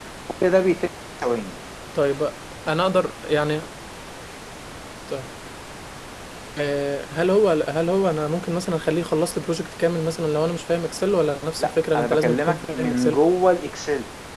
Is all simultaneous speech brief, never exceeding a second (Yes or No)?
No